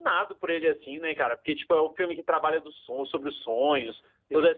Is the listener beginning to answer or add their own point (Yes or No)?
No